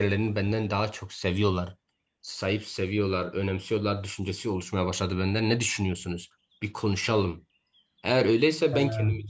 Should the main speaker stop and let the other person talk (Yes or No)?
No